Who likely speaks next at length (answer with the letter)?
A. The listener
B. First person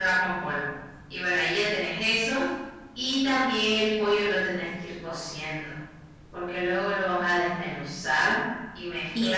A